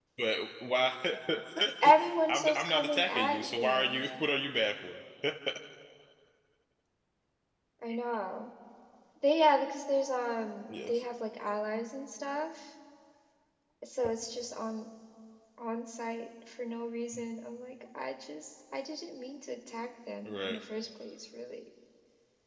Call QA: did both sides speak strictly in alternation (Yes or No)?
No